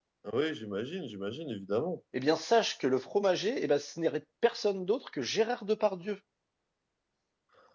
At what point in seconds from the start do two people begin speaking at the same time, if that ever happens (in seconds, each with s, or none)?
none